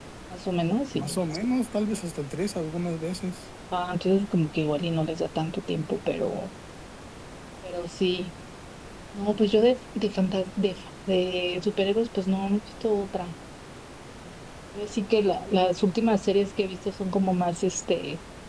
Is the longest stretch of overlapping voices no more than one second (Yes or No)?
Yes